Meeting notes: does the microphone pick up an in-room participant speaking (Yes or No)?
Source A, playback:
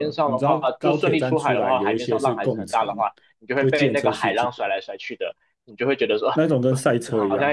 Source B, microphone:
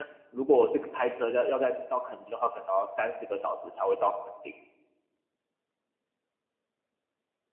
Yes